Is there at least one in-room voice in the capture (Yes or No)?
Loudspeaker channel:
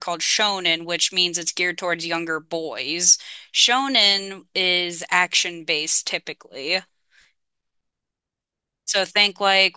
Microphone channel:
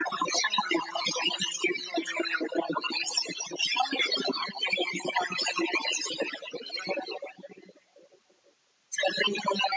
No